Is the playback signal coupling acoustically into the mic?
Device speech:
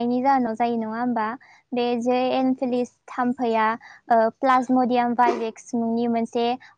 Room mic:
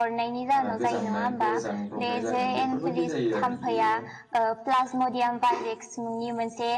Yes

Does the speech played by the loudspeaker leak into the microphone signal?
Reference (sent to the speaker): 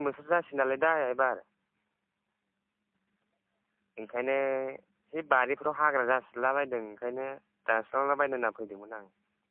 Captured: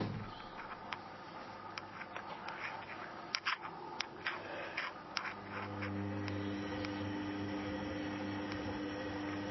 No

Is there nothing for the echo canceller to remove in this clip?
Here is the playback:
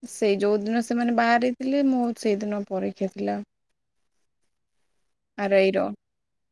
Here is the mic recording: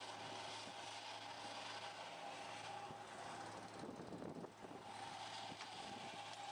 Yes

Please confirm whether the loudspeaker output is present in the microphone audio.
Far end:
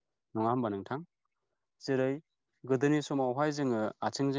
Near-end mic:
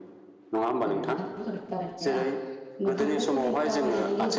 Yes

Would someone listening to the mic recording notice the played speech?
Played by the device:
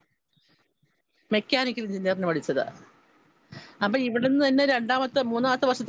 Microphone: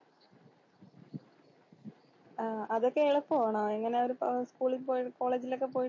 No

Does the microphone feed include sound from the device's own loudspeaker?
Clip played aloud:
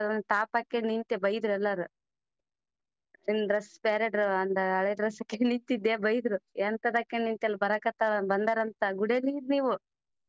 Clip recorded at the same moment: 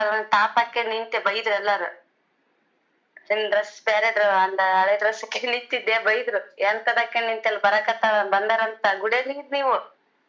Yes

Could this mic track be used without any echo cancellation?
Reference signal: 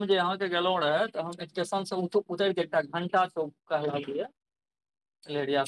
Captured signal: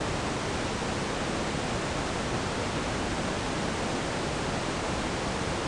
Yes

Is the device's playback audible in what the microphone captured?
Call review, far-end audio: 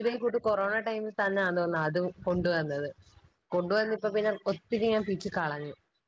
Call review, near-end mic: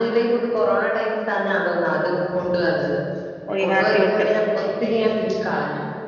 Yes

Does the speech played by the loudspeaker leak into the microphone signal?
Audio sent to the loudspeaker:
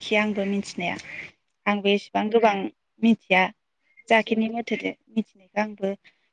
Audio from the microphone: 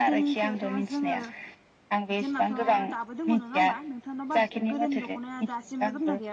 Yes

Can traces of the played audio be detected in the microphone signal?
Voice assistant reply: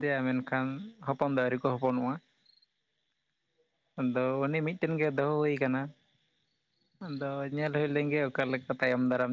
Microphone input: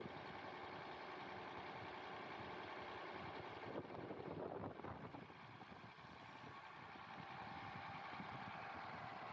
No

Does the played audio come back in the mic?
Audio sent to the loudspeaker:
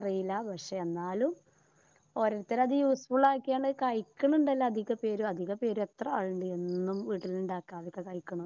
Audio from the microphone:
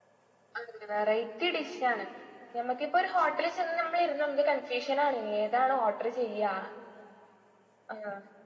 No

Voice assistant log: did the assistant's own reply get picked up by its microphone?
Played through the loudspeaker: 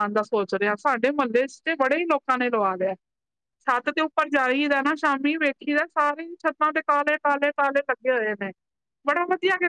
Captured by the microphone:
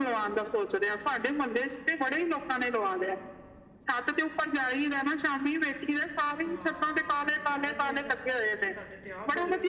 Yes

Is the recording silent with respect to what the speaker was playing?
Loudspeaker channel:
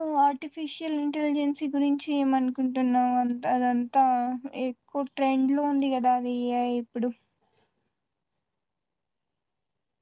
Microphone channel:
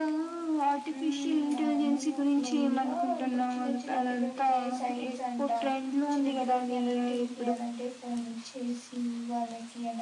No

